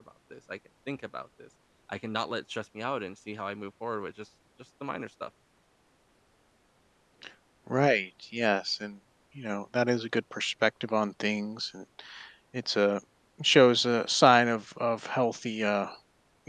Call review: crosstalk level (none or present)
none